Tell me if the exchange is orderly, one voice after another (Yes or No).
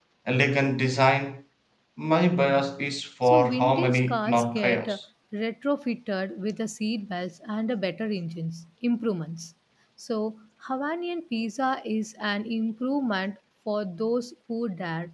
No